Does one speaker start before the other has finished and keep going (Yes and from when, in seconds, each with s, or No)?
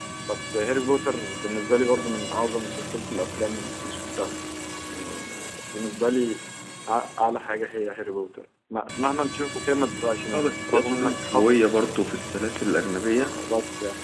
Yes, from 10.3 s